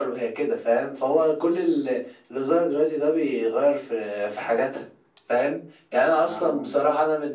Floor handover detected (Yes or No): No